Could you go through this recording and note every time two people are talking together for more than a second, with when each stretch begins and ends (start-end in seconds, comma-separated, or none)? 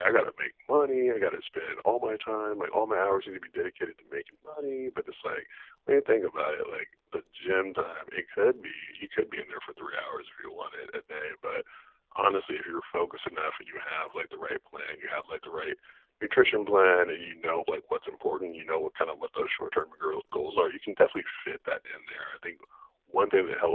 none